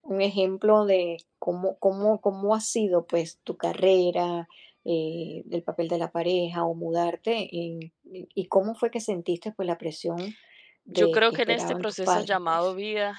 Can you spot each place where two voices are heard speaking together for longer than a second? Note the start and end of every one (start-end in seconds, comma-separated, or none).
10.9-12.7